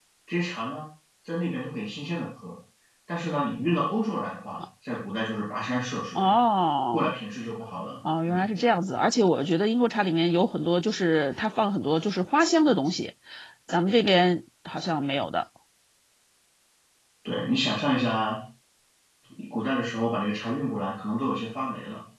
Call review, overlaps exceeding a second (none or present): none